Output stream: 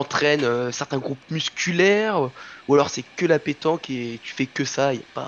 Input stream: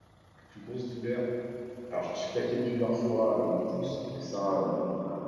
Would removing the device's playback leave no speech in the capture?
No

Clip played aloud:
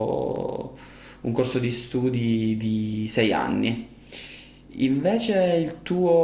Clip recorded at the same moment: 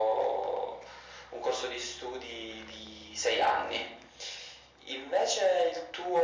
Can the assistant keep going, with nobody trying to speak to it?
Yes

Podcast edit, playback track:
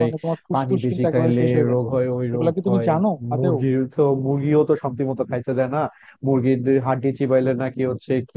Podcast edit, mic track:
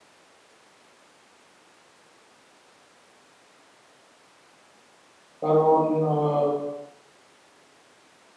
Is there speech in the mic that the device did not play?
Yes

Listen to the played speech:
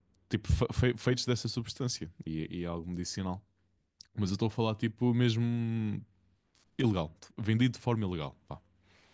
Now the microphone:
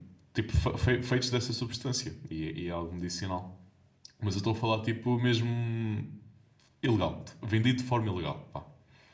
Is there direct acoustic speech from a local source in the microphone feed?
No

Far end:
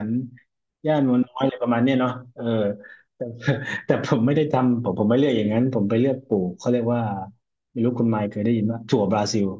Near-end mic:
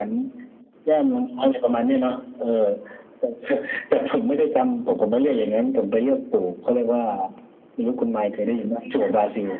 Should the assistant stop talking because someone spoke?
Yes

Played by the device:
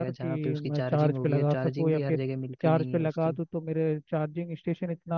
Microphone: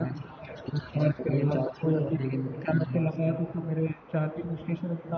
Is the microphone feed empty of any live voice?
Yes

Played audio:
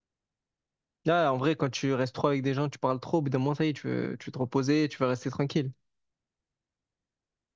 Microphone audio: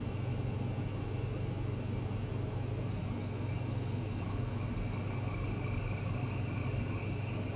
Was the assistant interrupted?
No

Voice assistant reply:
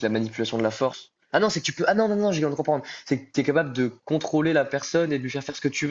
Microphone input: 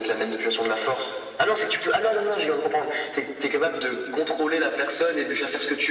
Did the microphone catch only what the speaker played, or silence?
Yes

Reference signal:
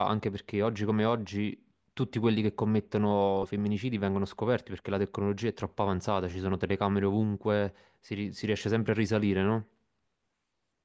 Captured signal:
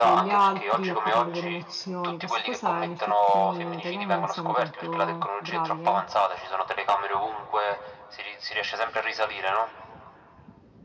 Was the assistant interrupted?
Yes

